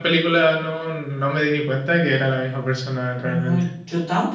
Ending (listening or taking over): taking over